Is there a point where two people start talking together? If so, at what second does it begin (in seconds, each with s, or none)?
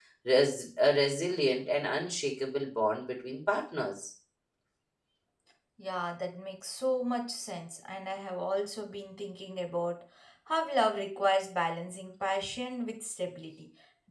none